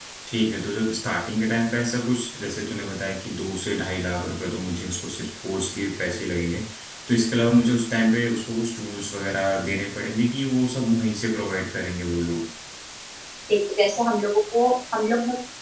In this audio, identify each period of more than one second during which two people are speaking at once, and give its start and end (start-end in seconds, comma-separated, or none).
none